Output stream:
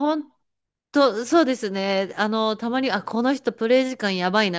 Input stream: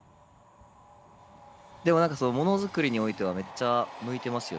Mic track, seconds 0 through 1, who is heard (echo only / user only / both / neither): neither